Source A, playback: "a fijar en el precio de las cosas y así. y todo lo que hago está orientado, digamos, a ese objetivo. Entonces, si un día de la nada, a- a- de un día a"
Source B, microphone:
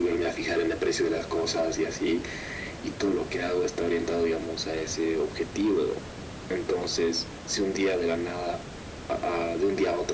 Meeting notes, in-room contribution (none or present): none